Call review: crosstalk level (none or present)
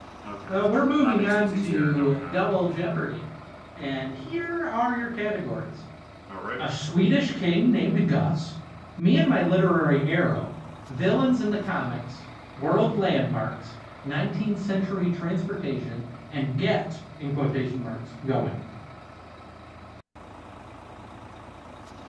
present